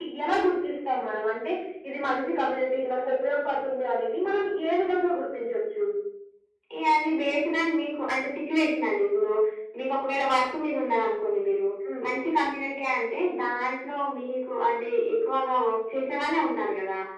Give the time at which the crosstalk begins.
none

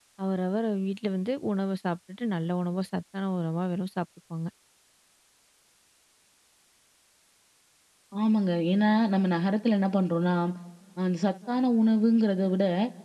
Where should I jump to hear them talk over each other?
none

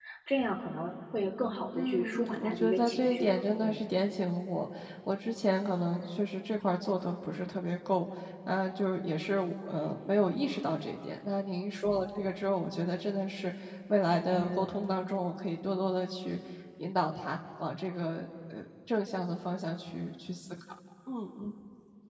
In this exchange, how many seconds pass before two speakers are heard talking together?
2 s

